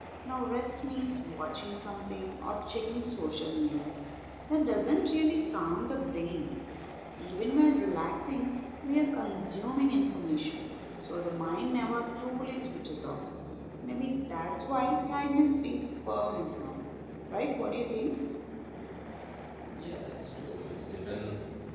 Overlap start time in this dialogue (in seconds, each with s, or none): none